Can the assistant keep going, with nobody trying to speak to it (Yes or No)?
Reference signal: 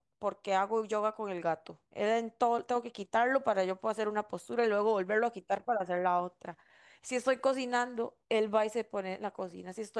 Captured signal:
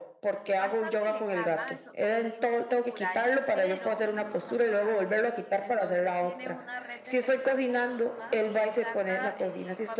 No